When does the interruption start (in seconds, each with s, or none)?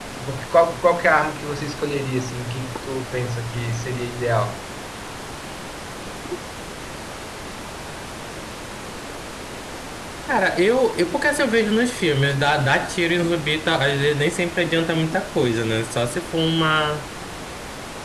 none